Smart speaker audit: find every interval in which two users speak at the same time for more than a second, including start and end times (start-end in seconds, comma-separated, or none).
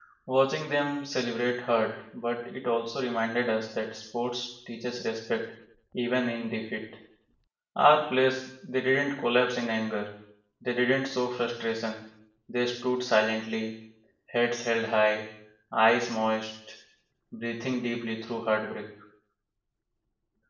none